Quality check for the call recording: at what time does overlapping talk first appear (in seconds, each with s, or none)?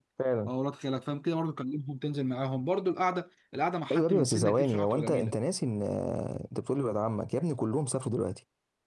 3.9 s